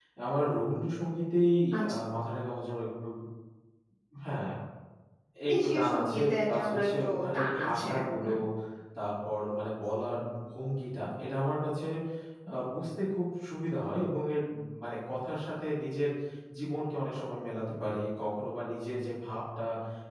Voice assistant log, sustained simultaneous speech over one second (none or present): present